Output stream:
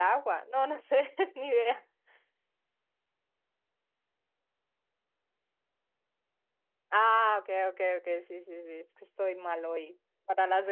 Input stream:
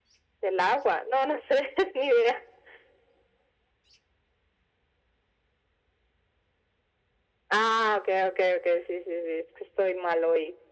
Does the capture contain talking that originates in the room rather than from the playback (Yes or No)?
No